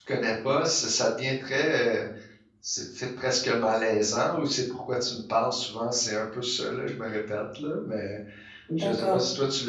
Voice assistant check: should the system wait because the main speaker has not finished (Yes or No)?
Yes